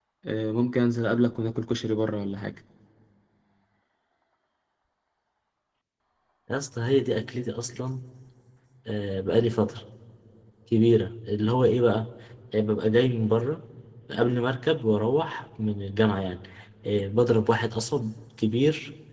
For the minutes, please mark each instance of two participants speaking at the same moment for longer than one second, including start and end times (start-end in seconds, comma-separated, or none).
none